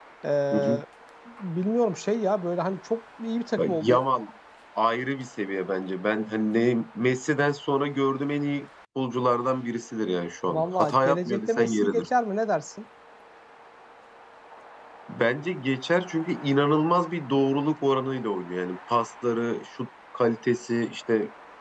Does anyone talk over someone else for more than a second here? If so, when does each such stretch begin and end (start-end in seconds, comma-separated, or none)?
10.5-12.1